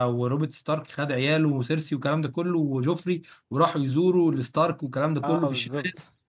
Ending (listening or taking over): listening